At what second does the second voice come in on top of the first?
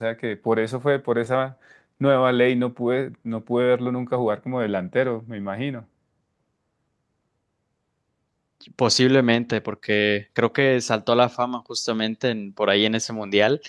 none

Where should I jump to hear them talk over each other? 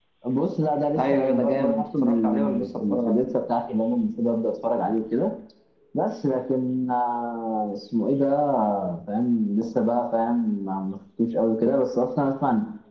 1 s

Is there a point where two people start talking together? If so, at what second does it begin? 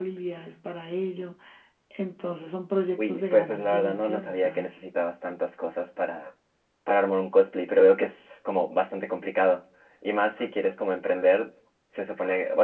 3 s

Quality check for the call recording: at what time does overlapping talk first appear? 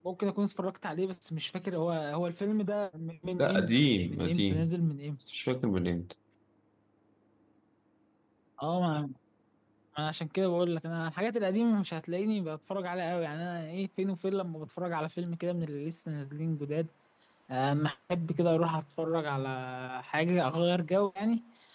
3 s

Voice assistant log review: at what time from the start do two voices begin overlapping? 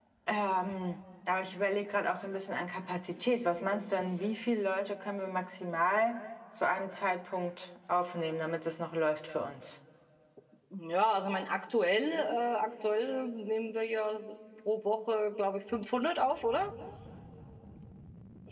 none

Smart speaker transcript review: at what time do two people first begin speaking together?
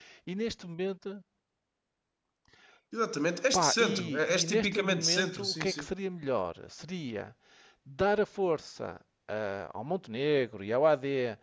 4 s

